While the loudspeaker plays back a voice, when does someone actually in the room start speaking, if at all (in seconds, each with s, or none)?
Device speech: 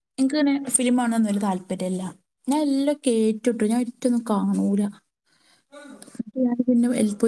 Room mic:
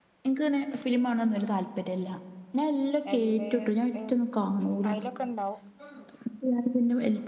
3.1 s